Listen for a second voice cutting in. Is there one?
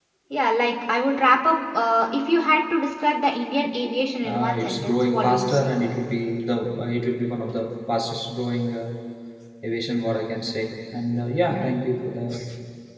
Yes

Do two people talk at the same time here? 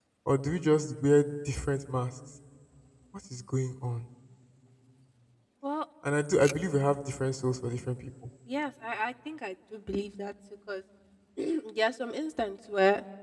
No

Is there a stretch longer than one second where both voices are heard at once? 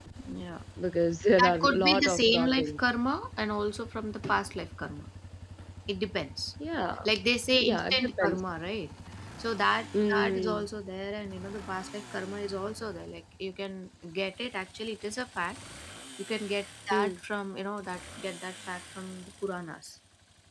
Yes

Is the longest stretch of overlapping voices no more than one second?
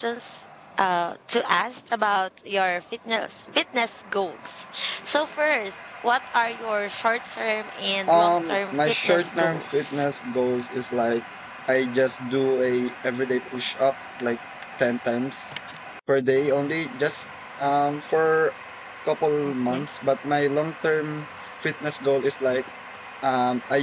No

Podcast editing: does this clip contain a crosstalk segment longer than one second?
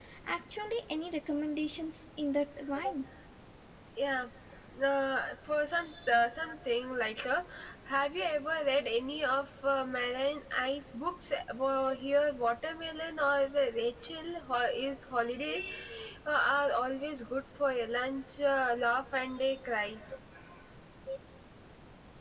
No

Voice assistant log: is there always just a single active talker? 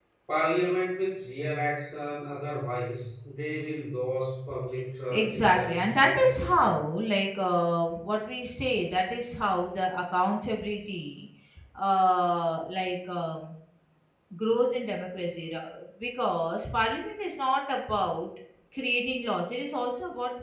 No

